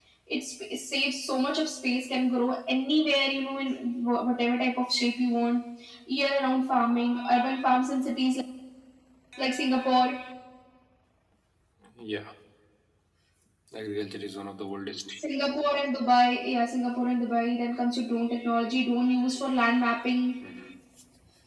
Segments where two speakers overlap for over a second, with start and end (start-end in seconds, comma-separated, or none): none